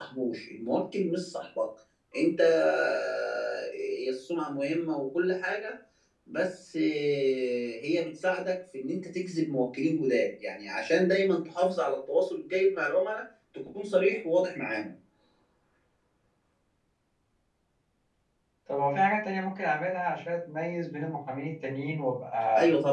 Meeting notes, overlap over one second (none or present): none